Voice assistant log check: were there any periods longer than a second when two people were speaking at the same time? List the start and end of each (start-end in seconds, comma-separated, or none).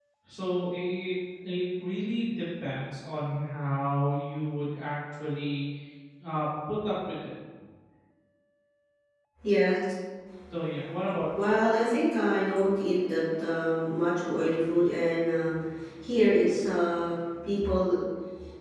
none